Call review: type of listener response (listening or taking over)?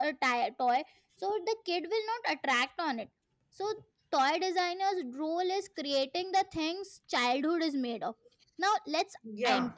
listening